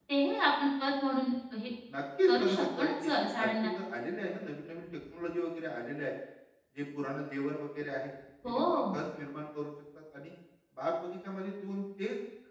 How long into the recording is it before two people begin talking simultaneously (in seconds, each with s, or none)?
2.3 s